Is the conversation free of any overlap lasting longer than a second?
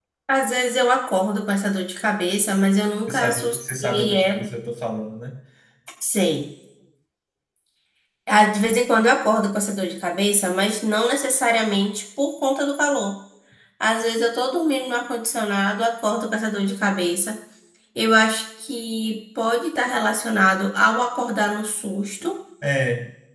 No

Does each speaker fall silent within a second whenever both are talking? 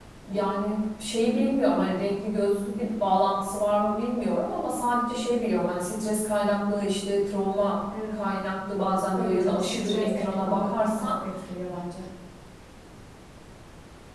No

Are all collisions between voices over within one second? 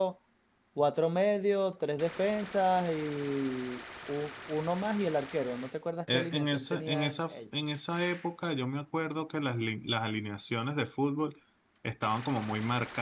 No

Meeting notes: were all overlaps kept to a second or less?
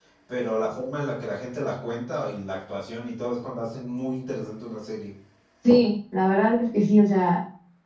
Yes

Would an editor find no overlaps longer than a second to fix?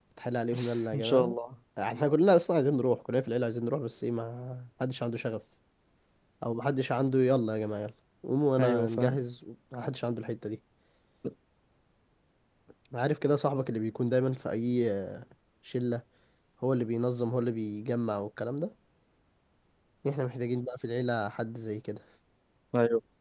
Yes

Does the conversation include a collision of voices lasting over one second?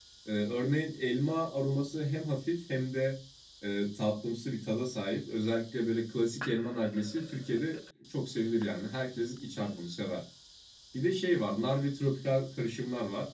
No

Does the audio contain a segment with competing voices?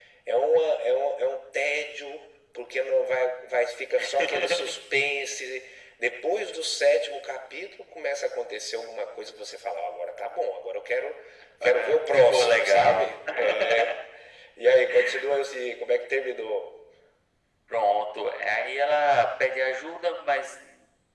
Yes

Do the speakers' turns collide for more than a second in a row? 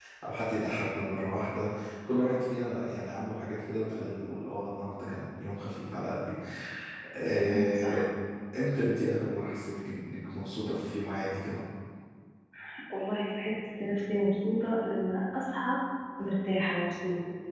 No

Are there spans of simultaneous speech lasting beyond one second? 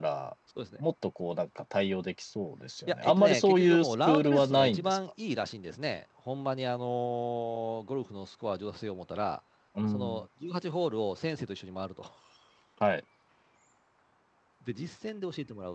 Yes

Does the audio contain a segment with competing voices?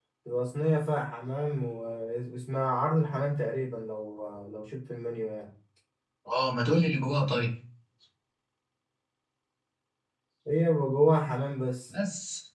No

